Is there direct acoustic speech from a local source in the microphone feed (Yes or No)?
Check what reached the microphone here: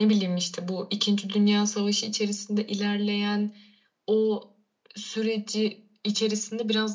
No